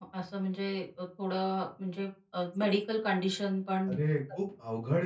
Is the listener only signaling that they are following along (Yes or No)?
No